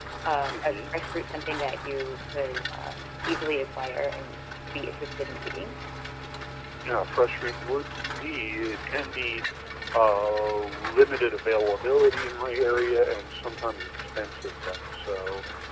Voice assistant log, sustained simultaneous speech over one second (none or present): none